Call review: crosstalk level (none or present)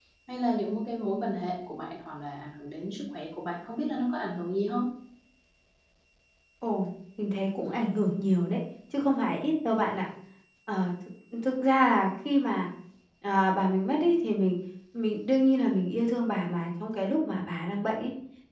none